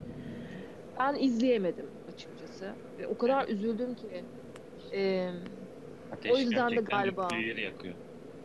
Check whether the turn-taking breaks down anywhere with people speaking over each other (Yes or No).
Yes